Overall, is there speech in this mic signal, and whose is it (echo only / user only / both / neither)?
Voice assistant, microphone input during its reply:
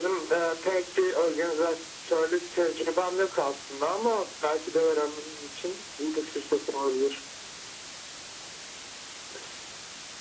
echo only